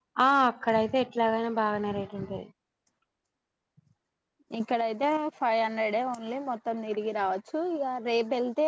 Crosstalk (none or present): none